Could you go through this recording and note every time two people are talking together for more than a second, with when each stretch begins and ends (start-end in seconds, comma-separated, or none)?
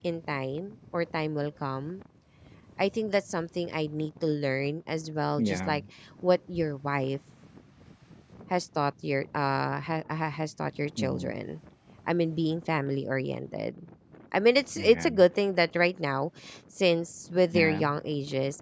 none